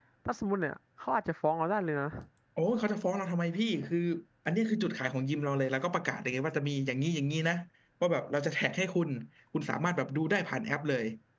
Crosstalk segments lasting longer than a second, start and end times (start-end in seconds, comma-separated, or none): none